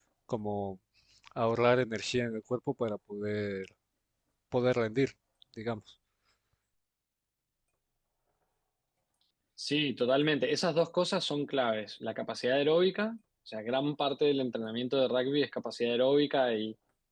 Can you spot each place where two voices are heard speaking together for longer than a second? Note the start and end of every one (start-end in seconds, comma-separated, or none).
none